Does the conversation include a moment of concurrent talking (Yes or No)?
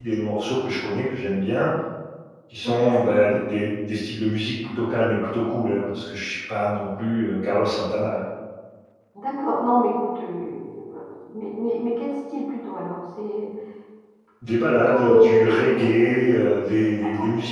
Yes